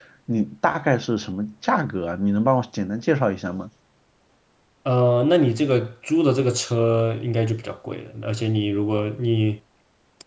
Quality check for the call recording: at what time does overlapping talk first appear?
none

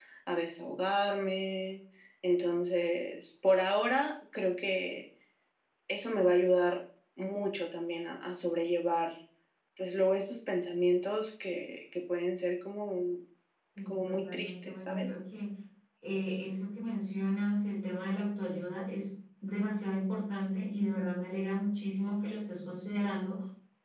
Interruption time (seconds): 13.9 s

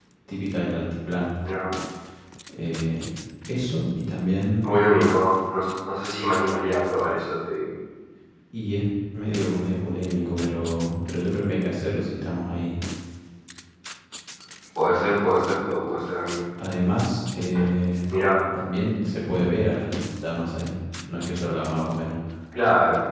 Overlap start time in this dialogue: none

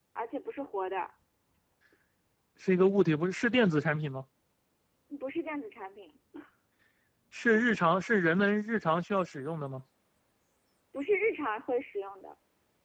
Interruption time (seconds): none

